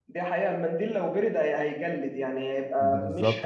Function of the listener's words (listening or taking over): taking over